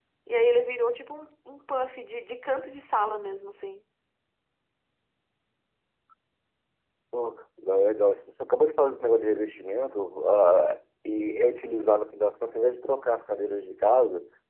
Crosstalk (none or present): none